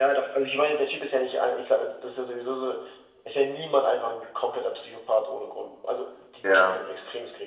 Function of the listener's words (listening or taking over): listening